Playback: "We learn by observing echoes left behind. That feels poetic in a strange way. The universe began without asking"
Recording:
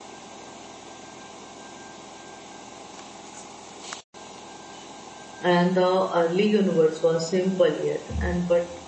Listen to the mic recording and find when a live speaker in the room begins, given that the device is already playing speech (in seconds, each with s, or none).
5.5 s